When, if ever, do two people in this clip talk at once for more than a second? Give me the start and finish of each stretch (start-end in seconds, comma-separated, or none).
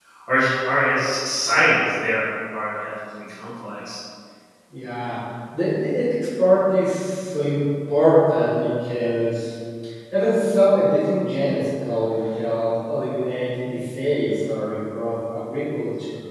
none